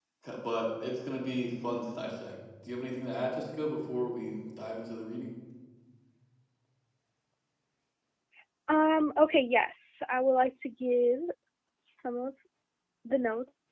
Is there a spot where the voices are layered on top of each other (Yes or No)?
No